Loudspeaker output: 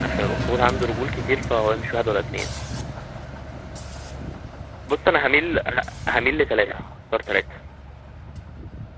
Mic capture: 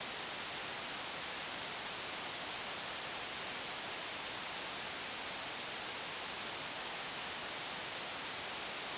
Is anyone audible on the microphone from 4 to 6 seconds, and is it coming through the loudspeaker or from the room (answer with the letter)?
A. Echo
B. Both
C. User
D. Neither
D